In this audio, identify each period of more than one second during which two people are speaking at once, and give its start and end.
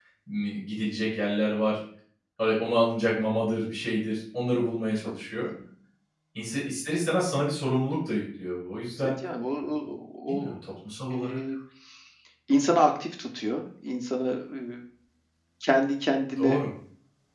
none

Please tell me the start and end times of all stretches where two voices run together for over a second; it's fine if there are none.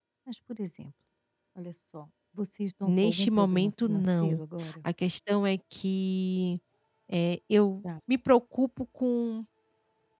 2.9-4.4

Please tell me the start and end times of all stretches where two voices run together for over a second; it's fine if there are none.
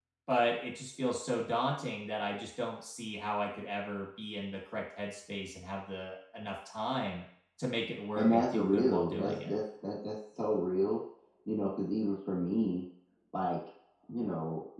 8.2-9.5

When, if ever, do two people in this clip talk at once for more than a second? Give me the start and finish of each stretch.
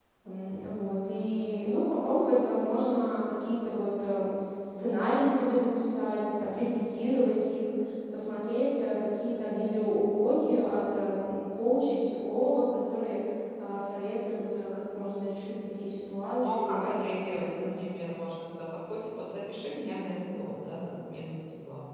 16.4-17.7

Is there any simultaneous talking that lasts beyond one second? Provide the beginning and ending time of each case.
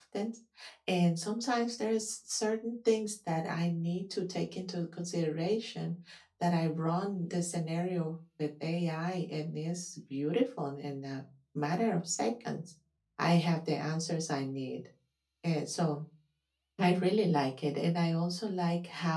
none

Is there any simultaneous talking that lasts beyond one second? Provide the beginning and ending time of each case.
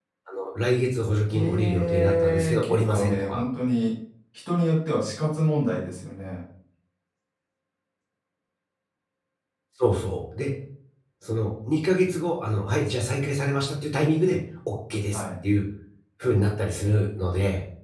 1.3-3.4

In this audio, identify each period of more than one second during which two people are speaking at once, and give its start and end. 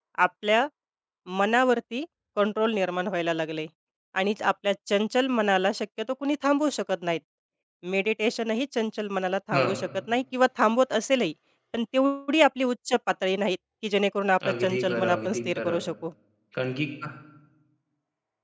14.5-15.8

